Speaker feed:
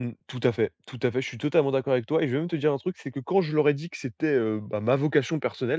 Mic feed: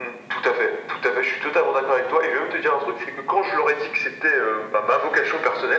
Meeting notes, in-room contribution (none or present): none